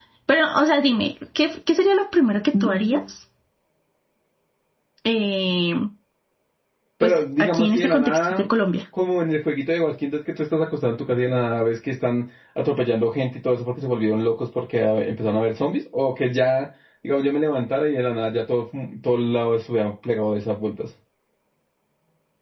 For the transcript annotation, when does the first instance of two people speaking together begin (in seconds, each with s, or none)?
7.0 s